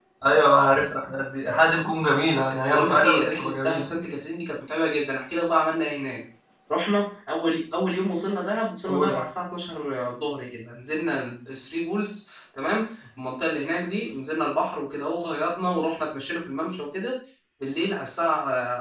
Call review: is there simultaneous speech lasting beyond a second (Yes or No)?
Yes